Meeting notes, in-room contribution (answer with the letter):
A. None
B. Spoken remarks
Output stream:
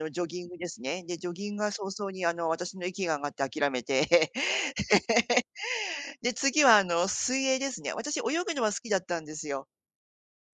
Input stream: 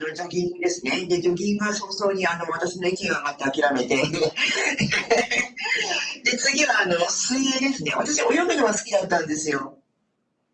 A